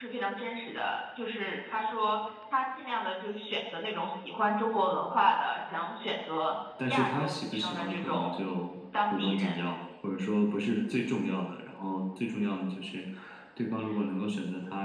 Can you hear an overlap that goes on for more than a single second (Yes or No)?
Yes